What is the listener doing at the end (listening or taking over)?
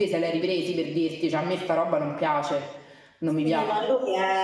taking over